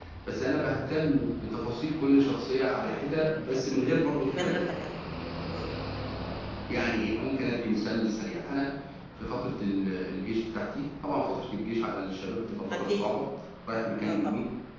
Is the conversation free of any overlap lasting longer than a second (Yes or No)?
Yes